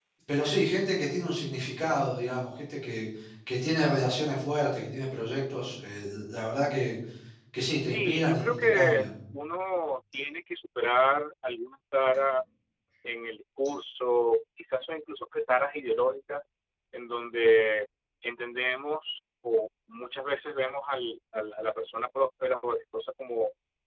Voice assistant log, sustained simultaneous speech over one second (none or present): present